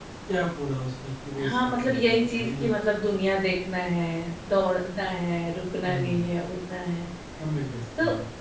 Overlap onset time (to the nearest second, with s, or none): 1 s